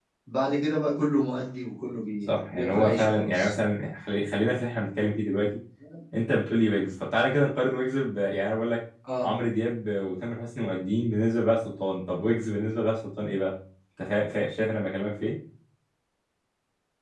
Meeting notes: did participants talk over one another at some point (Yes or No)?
Yes